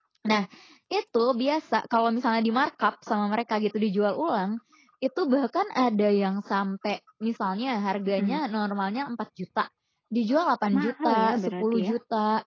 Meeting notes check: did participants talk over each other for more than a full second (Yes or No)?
Yes